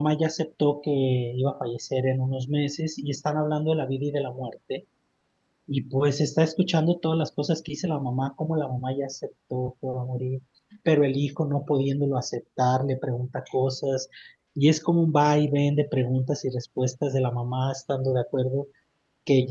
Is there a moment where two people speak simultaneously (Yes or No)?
No